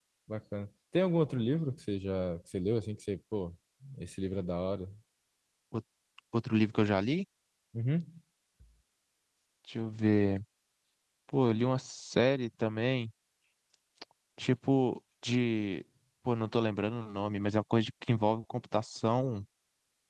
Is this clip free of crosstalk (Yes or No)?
Yes